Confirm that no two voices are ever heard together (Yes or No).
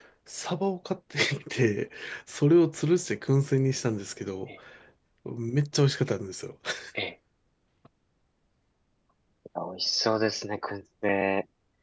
Yes